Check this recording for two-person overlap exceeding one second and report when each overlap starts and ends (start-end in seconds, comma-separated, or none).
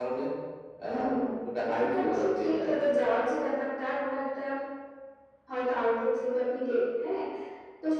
1.7-3.1